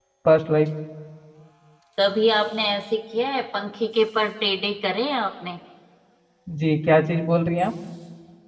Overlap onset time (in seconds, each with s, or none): none